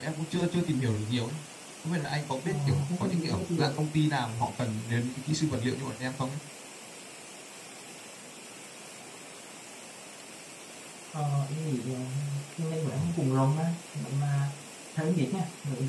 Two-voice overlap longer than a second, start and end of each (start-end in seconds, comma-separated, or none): 2.5-3.8